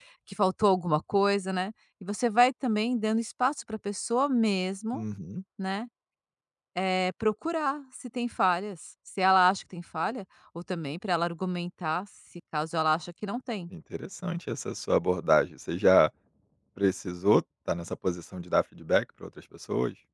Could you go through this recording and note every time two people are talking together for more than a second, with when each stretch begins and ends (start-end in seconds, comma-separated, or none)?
none